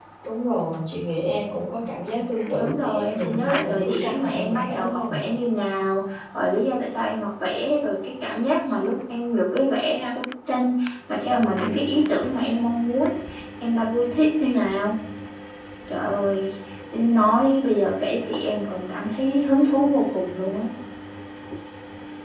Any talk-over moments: Yes, from 2.5 s

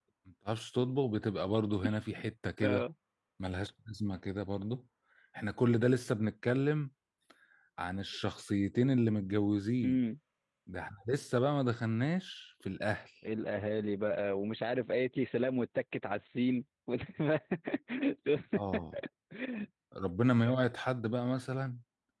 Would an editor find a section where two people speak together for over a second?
No

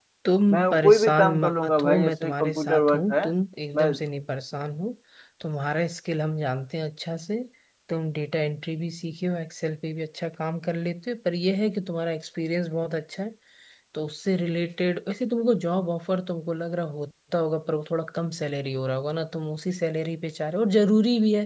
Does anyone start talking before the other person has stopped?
Yes, from 0.5 s

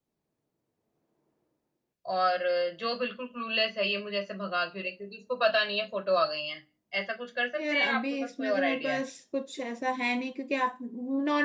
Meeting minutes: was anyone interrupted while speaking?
Yes, from 7.6 s

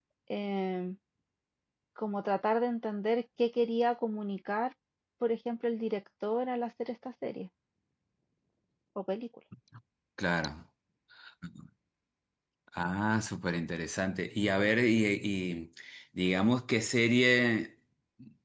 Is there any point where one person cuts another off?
No

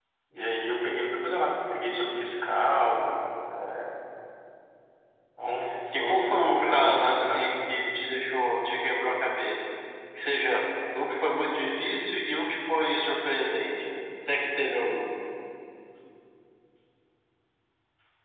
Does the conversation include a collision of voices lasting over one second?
Yes, from 6.0 s

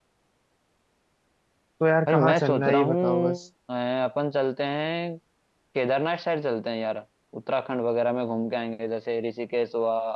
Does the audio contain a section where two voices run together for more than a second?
Yes, from 2.1 s

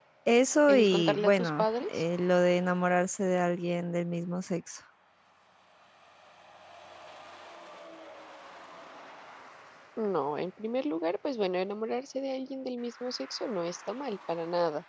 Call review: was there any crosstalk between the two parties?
Yes, from 0.7 s

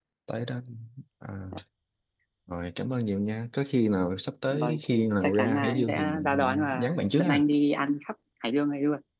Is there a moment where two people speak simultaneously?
Yes, from 4.5 s

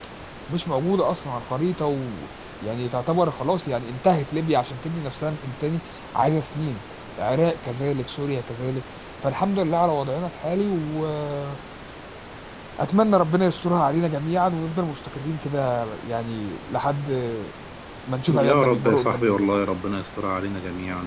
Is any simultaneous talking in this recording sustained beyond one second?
Yes, from 18.3 s

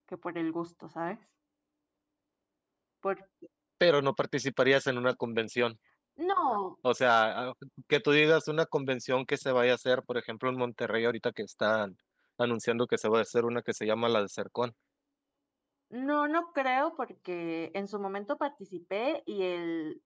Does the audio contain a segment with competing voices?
No

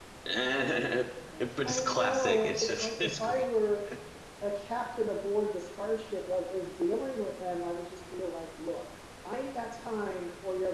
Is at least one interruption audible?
Yes, from 1.6 s

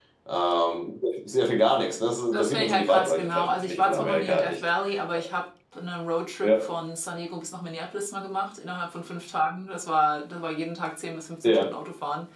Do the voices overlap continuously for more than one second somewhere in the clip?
Yes, from 2.3 s

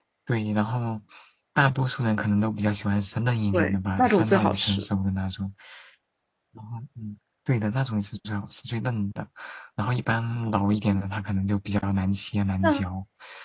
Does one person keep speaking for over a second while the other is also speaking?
Yes, from 3.5 s

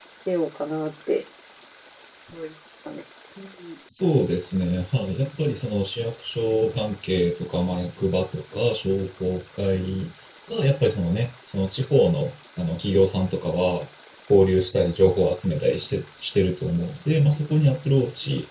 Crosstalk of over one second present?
No

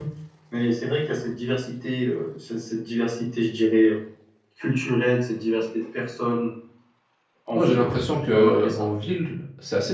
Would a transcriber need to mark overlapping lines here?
Yes, from 7.5 s

